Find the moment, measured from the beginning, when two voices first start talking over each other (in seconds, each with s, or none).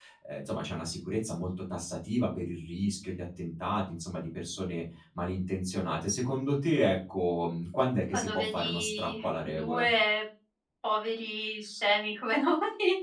8.1 s